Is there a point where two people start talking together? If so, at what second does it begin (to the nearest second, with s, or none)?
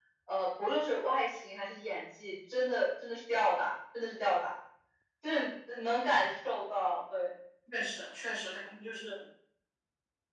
none